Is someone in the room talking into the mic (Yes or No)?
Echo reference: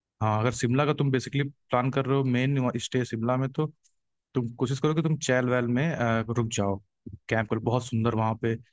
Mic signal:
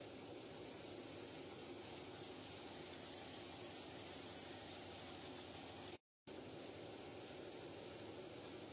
No